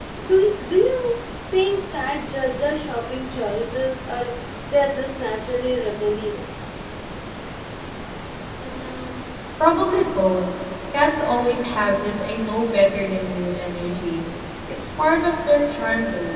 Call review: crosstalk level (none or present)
none